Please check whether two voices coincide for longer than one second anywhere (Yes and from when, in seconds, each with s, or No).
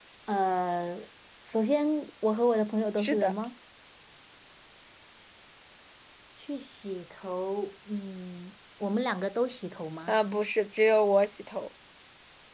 No